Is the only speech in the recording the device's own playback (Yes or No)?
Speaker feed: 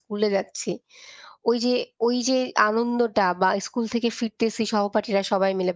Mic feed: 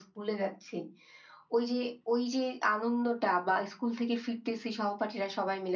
Yes